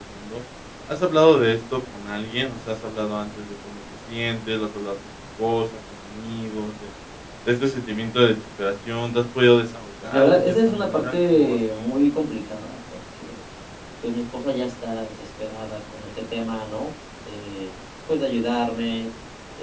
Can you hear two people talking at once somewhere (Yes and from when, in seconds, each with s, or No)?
Yes, from 10.1 s